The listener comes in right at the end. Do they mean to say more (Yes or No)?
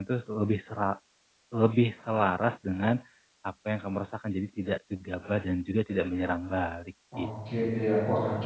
Yes